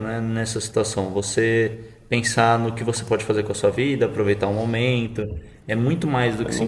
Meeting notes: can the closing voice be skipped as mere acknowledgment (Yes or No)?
No